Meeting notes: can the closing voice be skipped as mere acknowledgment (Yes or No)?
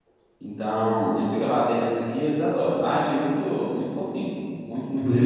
No